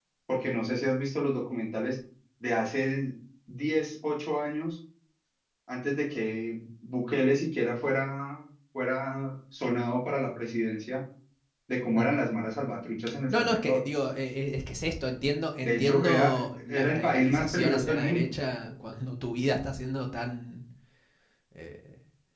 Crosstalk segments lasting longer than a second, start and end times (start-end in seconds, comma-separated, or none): 15.6-18.3